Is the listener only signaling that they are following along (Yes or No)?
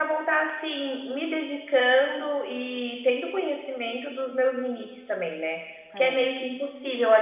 Yes